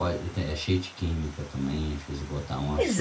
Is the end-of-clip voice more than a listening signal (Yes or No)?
Yes